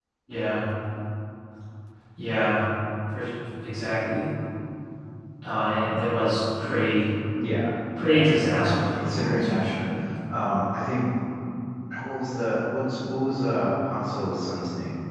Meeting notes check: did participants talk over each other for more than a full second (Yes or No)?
Yes